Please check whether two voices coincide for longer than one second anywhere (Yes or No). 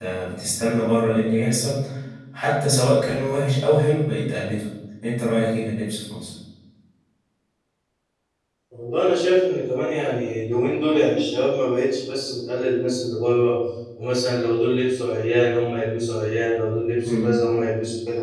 No